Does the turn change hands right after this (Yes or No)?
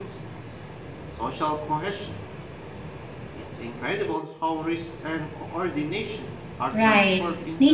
Yes